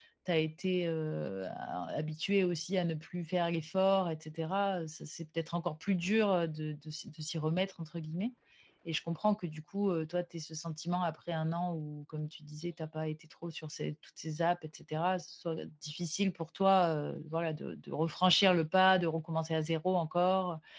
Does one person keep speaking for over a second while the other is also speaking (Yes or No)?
No